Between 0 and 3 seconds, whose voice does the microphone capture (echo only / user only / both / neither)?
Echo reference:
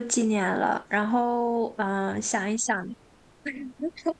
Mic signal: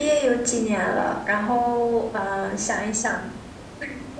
echo only